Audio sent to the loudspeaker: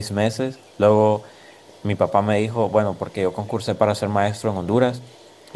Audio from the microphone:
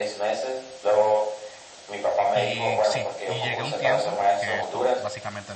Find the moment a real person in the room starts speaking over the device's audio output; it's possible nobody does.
2.3 s

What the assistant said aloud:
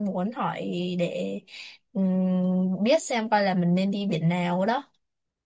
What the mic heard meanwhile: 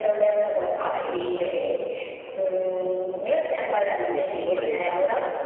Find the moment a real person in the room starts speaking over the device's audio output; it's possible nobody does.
3.4 s

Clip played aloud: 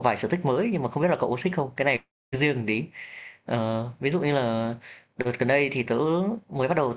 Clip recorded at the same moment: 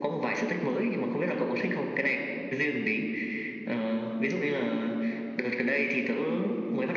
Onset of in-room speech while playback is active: none

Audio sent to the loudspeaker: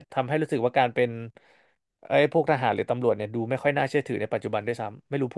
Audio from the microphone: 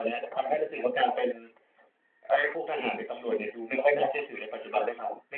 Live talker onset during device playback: none

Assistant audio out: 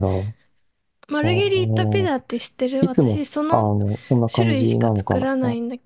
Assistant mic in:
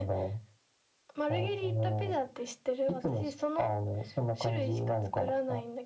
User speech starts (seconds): none

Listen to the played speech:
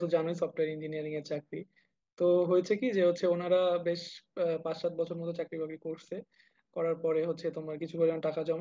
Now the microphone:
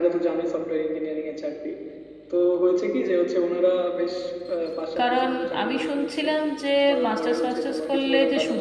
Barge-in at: 5.0 s

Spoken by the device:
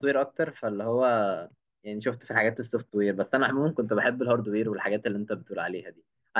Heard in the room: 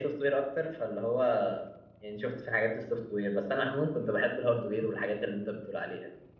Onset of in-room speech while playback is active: none

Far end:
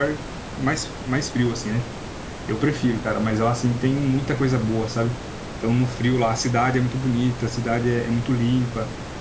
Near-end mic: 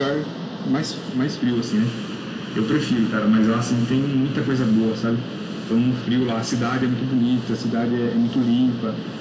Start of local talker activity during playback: none

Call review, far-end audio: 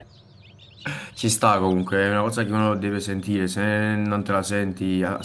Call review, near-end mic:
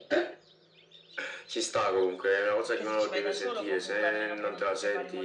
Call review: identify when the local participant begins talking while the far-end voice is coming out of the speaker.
2.6 s

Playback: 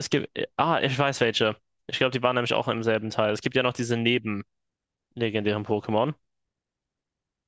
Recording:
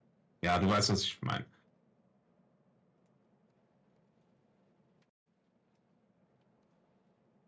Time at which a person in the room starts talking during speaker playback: 0.4 s

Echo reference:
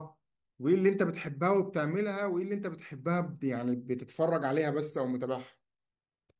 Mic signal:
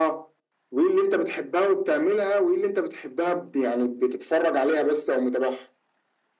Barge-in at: none

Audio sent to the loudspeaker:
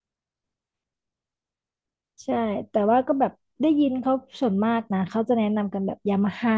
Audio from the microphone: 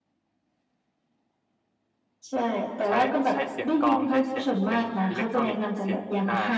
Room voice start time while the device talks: 2.9 s

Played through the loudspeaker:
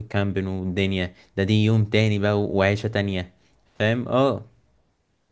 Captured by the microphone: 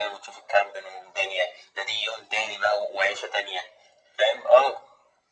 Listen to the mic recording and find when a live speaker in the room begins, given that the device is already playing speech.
none

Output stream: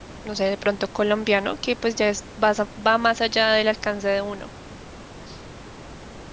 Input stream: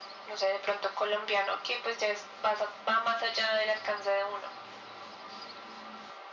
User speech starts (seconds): none

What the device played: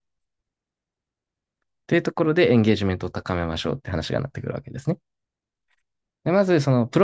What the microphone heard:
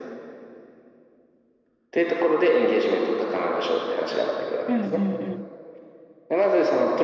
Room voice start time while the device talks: 4.7 s

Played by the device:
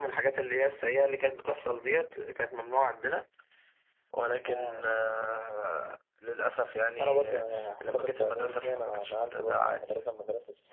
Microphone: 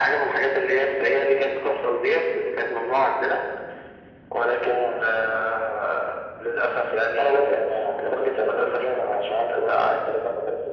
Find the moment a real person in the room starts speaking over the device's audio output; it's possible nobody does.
none

